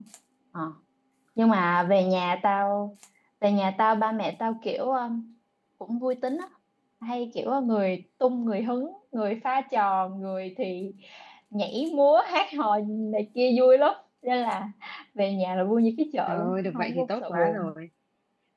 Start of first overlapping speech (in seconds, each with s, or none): 16.3 s